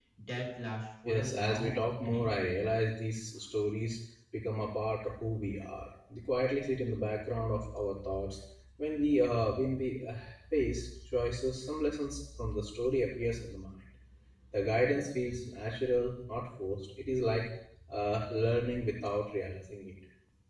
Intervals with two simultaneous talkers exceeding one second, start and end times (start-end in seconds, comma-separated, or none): 1.1-2.4